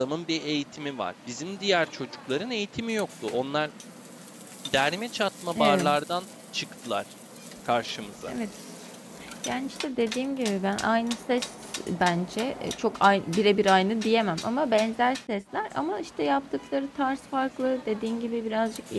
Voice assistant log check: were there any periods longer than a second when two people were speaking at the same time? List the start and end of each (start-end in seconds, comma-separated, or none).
none